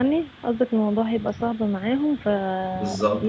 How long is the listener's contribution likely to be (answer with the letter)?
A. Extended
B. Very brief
A